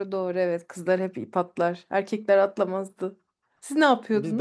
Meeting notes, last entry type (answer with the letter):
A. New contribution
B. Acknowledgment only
A